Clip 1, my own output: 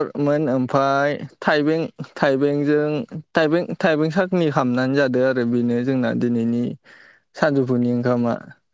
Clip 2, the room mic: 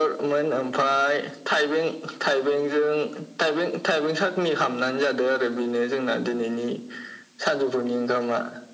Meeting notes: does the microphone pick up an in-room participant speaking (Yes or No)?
No